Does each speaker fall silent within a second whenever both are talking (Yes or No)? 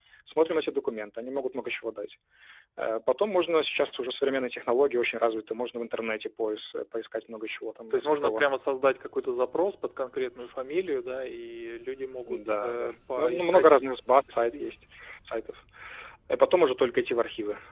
No